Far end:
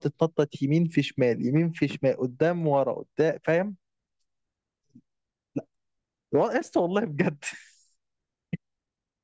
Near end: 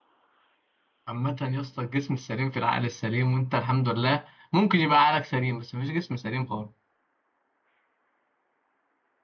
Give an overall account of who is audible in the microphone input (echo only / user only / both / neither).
user only